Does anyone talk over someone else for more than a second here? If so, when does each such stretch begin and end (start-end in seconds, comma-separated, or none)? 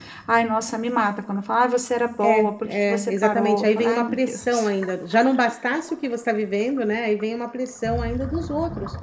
2.2-4.7